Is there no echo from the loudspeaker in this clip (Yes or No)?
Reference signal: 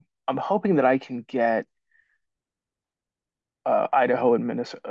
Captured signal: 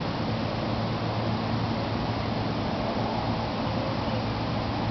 Yes